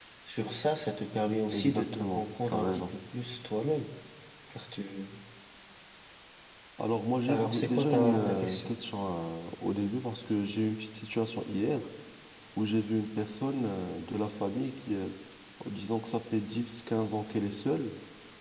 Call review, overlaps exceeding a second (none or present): present